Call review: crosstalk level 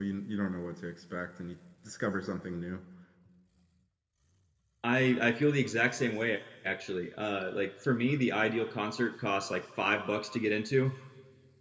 none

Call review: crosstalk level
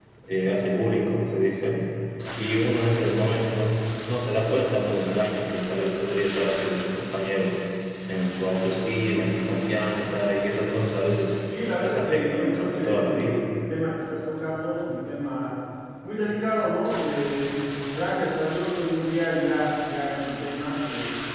present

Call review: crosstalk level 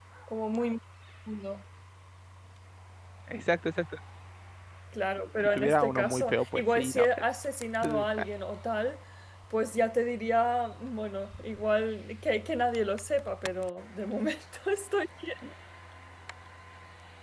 present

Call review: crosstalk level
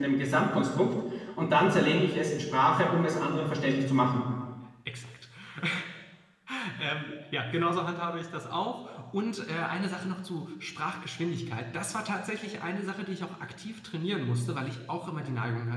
none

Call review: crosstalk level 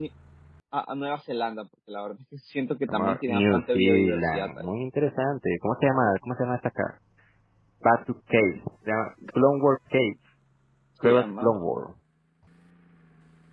present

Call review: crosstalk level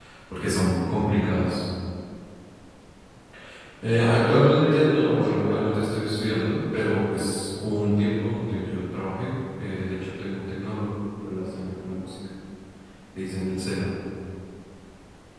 present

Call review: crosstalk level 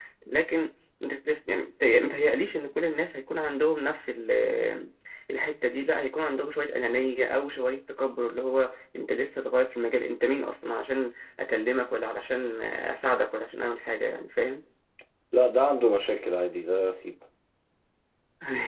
none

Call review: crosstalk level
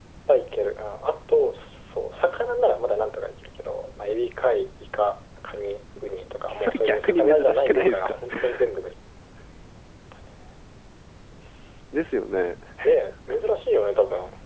present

